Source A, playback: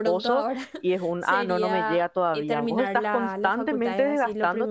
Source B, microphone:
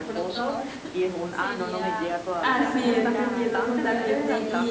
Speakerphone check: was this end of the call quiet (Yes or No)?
No